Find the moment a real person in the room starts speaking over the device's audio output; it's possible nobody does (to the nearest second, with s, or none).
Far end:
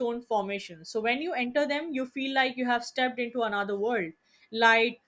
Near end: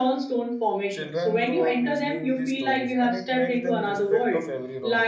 1 s